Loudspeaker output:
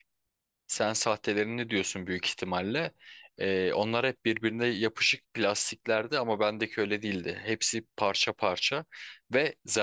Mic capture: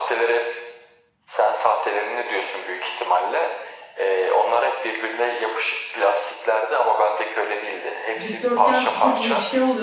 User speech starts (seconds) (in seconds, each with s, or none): 8.2 s